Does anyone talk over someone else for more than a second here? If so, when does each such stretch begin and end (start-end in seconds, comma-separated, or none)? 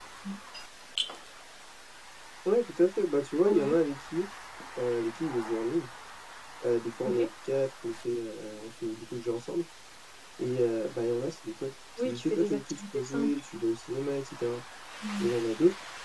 12.0-13.4